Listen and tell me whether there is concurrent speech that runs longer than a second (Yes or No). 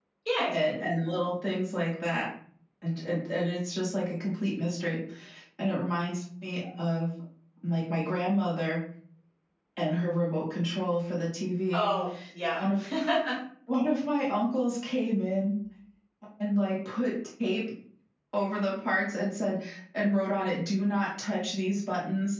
No